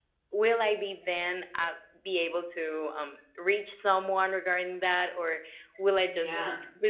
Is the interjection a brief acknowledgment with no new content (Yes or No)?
Yes